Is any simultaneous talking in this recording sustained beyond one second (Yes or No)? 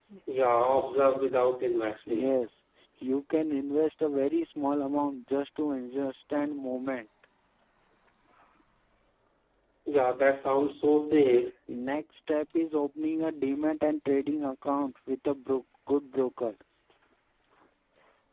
No